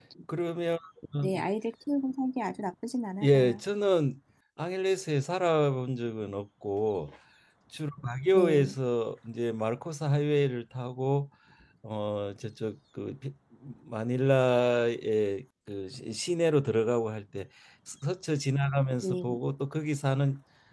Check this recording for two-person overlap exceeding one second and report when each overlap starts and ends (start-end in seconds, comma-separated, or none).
none